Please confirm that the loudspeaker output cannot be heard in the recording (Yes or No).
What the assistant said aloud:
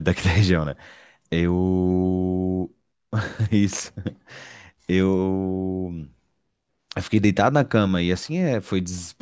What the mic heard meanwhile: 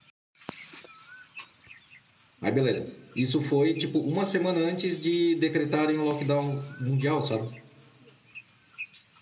Yes